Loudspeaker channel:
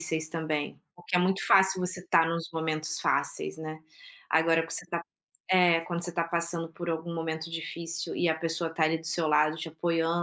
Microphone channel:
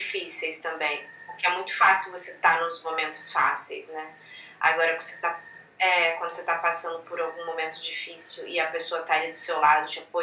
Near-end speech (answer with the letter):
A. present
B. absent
B